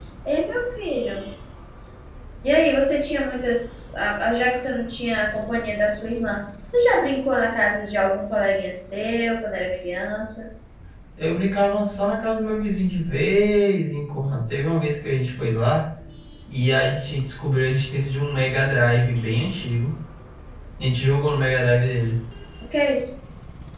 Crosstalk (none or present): none